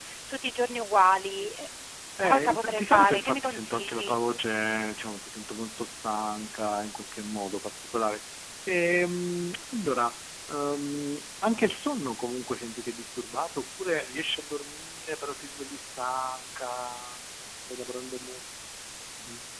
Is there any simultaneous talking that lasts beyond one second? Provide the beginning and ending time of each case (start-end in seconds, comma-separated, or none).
2.2-4.2